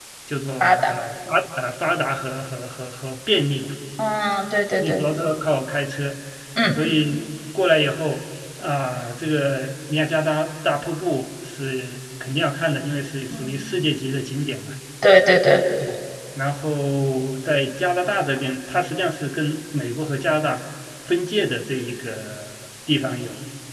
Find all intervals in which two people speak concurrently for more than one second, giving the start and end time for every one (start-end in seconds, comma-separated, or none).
none